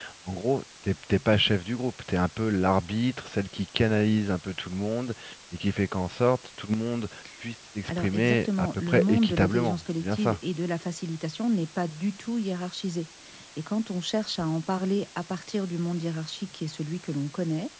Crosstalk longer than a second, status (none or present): present